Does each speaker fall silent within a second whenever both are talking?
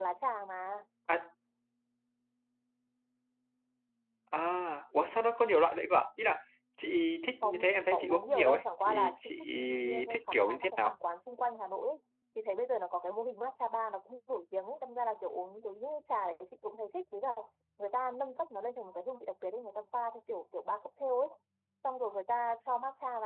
No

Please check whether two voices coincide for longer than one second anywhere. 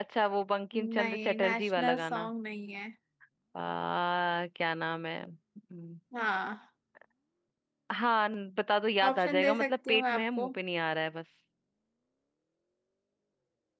Yes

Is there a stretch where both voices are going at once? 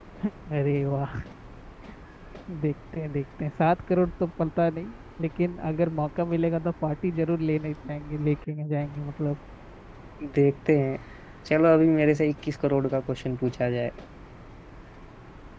No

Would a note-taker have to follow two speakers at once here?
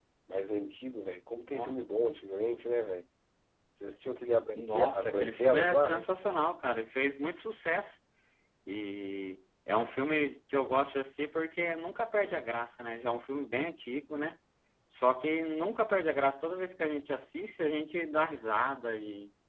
Yes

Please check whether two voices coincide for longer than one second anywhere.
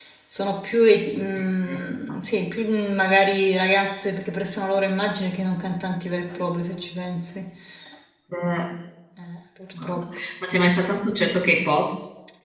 No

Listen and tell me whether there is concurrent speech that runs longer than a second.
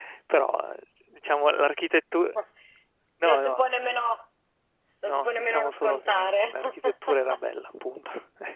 Yes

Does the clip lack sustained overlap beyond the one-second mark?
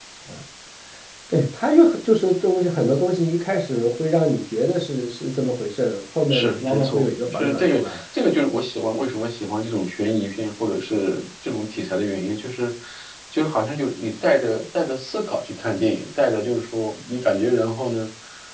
No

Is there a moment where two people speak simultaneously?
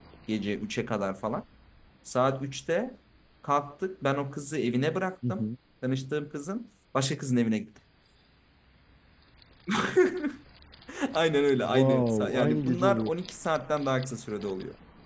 Yes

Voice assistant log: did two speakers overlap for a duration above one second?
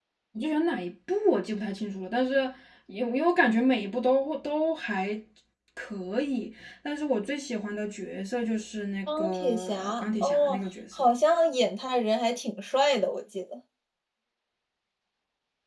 Yes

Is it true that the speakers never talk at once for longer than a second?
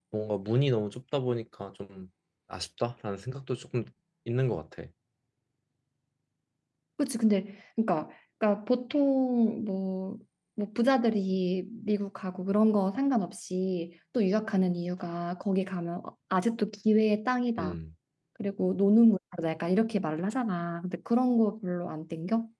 Yes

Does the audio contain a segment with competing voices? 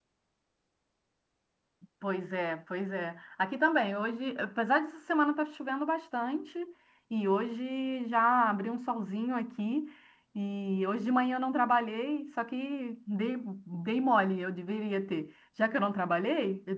No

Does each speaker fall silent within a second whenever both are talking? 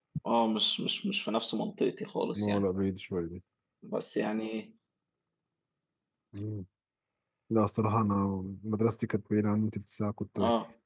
Yes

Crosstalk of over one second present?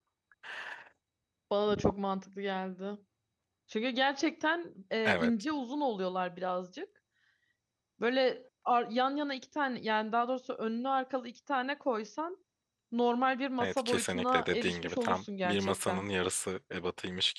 Yes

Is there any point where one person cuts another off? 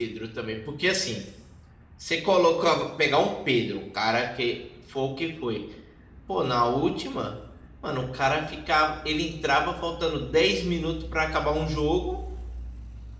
No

